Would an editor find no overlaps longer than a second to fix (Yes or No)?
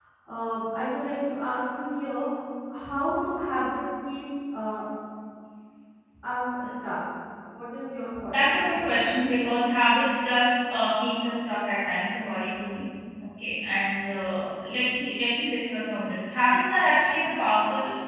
Yes